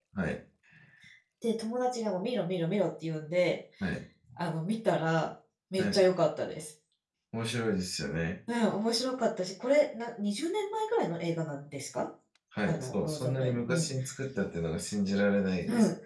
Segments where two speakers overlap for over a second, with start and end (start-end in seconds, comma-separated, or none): 12.7-13.9